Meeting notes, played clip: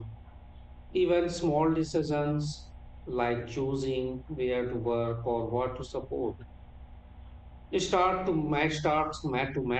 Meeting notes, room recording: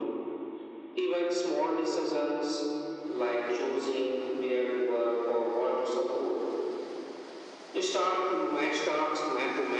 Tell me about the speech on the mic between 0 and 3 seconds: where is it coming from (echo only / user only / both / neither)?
echo only